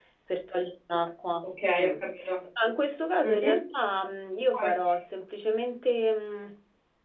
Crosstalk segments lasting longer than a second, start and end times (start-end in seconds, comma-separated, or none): none